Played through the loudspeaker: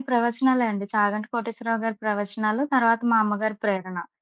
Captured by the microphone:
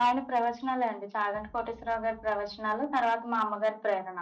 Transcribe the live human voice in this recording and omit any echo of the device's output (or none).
none